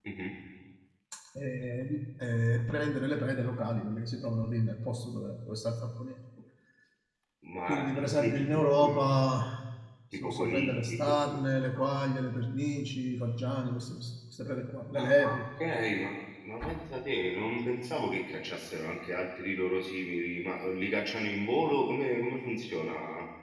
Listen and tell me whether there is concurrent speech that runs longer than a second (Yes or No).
Yes